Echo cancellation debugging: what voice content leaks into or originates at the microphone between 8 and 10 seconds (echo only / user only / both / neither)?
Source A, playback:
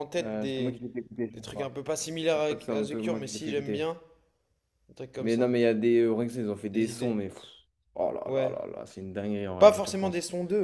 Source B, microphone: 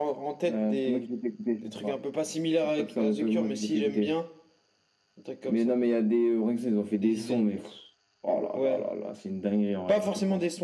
echo only